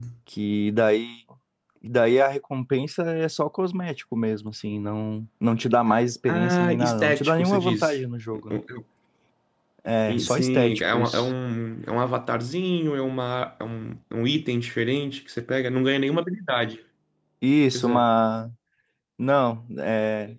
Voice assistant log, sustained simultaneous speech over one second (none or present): present